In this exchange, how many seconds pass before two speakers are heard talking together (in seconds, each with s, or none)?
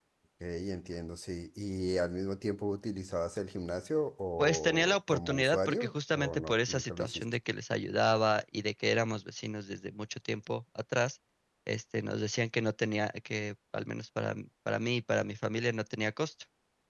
4.4 s